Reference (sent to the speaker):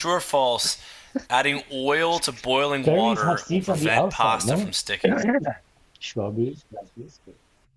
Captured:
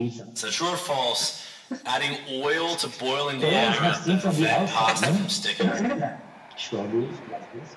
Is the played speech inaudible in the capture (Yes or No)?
No